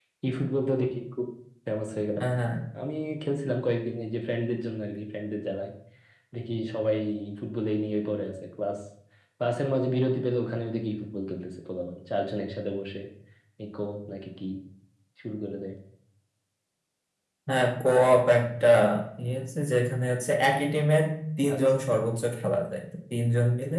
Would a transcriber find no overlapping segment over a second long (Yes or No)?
Yes